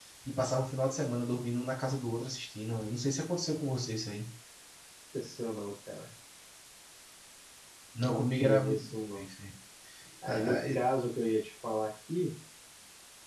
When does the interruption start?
8.0 s

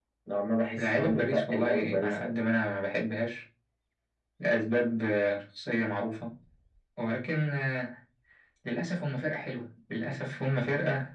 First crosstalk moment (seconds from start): 0.8 s

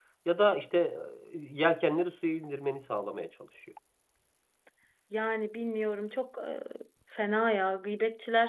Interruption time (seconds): none

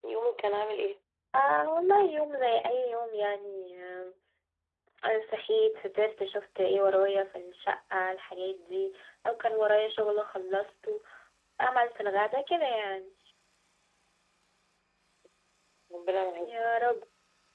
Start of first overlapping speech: none

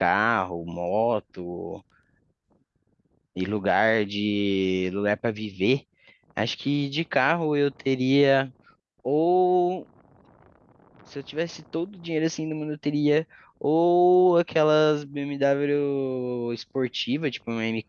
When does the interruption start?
none

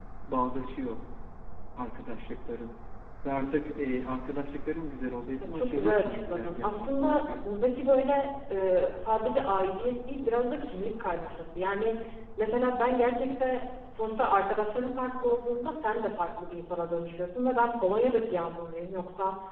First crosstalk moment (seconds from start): 5.4 s

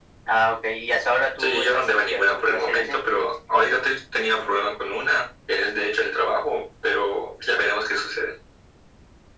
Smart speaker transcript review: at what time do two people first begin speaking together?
1.4 s

